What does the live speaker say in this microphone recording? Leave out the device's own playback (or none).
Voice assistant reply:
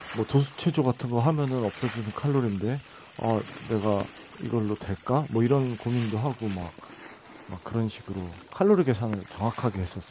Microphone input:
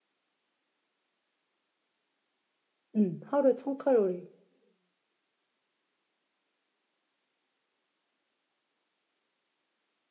음, 하루에 1000칼로리.